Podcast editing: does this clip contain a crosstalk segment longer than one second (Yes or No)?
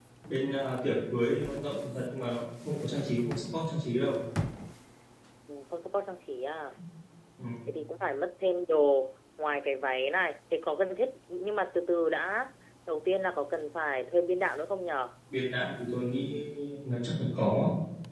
No